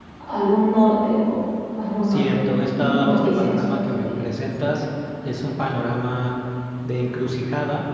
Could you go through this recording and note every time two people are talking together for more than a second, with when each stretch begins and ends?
2.8-4.2

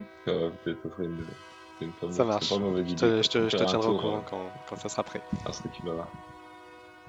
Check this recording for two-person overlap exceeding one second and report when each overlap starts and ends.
2.1-4.3

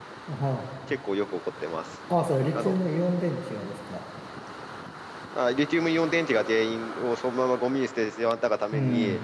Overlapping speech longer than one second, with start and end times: none

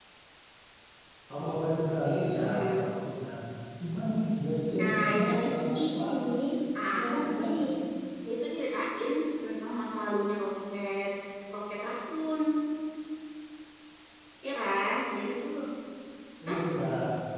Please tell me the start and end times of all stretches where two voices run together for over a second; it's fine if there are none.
4.8-6.0

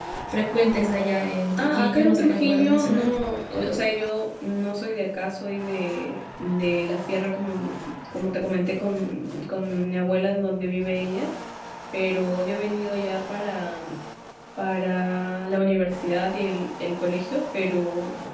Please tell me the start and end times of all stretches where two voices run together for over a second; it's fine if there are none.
1.6-3.1

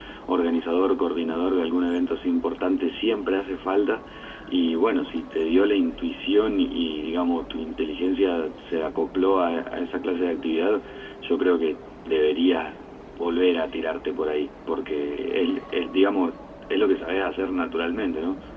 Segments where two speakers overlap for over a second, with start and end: none

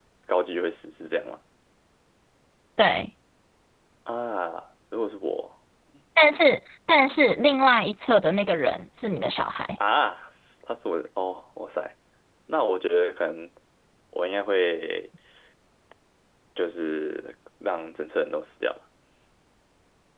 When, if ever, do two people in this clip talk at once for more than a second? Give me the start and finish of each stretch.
none

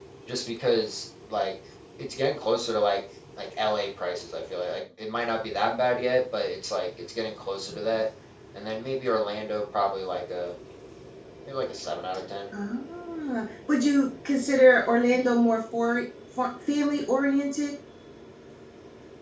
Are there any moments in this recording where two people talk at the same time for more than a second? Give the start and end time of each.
none

